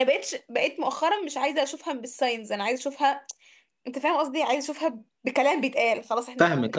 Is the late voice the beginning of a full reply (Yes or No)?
Yes